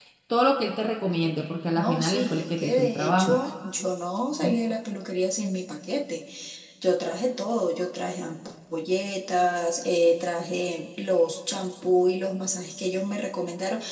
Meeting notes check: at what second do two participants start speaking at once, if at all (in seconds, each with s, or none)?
1.7 s